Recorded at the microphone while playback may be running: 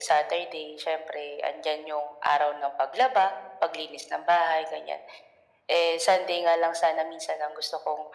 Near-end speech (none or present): none